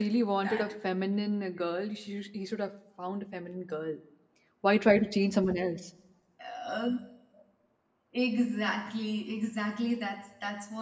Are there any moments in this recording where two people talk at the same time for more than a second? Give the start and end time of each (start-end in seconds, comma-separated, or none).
none